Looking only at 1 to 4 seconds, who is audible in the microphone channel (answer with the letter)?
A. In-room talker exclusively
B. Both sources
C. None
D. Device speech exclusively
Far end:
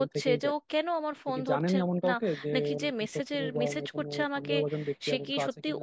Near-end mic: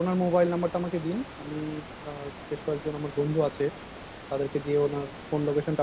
A